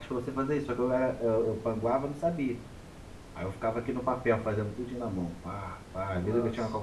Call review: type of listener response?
listening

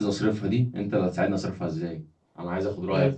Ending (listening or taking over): listening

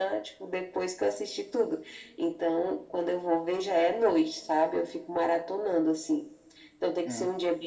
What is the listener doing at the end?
listening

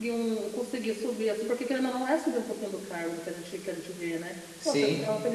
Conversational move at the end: listening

